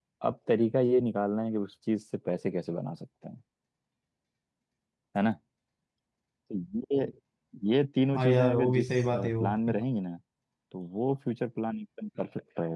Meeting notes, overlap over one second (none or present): present